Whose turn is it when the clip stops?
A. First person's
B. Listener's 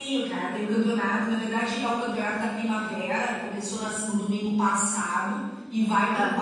A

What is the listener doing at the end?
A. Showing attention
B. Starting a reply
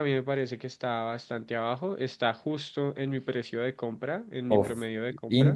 B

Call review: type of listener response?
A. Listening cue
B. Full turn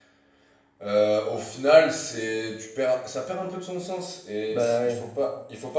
A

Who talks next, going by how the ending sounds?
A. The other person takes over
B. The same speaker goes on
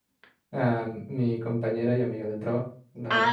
A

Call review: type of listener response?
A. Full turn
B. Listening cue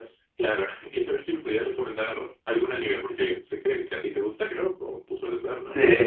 A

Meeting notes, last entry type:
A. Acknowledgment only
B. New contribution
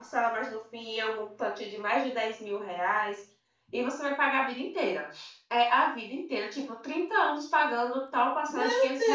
B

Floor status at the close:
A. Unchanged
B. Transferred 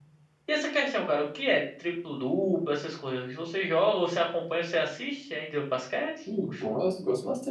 B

